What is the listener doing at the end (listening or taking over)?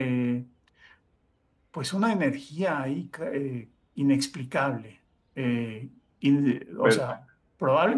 listening